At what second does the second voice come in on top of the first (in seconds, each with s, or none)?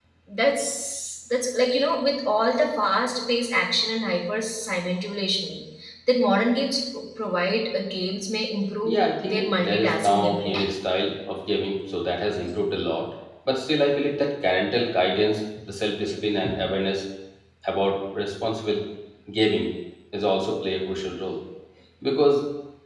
8.8 s